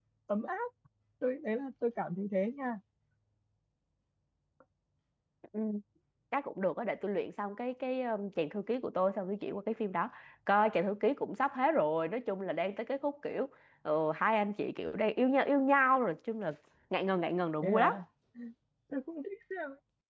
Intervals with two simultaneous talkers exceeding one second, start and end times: none

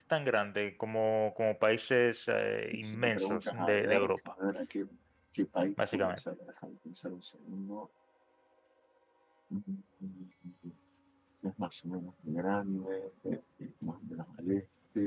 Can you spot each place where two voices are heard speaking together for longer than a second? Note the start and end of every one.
2.9-4.1

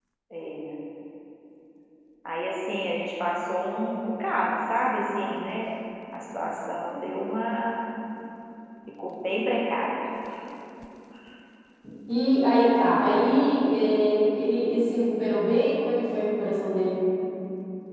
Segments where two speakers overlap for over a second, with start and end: none

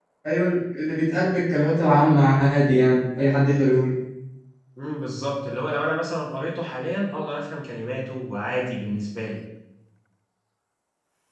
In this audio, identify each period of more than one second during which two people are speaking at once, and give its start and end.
none

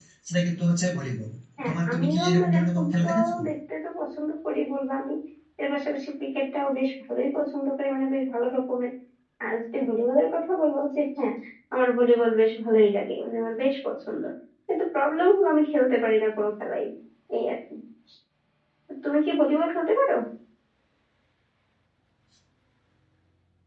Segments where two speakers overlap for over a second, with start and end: 1.7-3.3

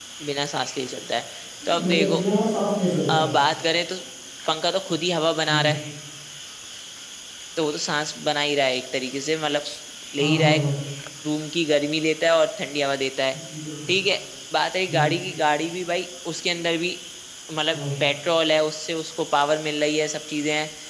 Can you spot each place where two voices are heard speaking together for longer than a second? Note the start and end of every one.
none

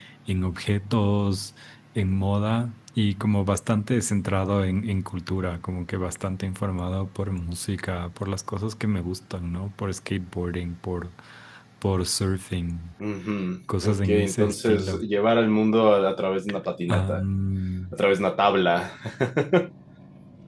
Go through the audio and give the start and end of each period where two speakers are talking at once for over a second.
13.8-15.0

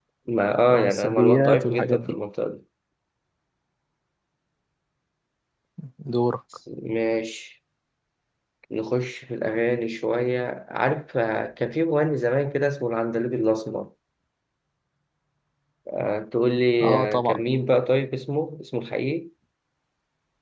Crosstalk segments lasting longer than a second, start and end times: 0.7-2.2

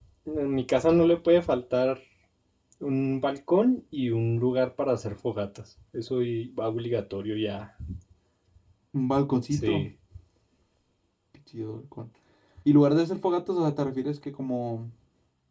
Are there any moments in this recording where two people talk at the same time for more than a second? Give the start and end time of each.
none

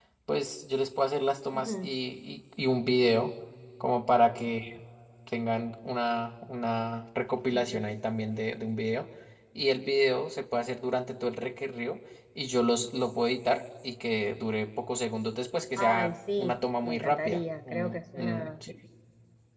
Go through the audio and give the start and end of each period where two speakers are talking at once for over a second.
15.8-18.5

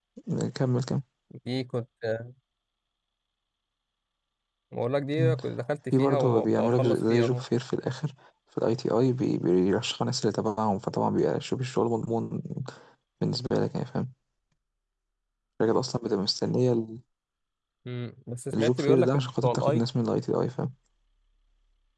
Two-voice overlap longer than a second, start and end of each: 5.9-7.4, 18.5-19.8

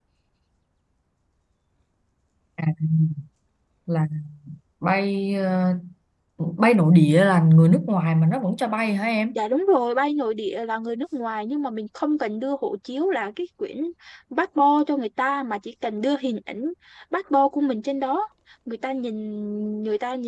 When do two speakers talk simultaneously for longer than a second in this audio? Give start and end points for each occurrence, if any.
none

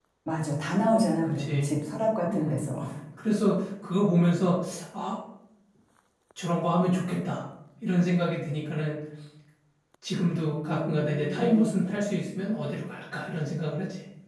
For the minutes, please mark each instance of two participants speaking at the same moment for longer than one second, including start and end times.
10.4-11.7

